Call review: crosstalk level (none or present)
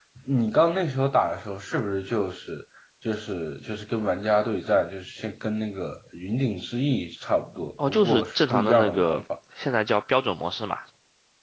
present